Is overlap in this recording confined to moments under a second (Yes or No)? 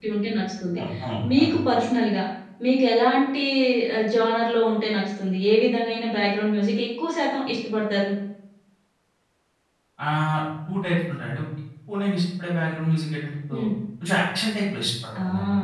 Yes